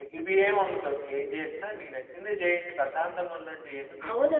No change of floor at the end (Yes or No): No